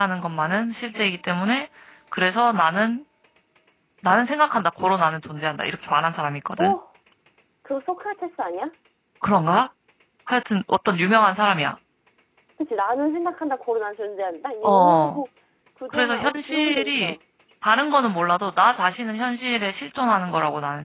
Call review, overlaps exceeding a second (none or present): present